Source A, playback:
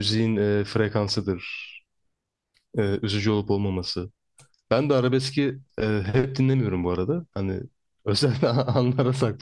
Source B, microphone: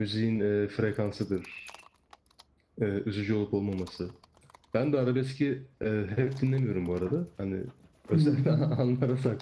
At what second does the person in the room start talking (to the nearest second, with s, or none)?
8 s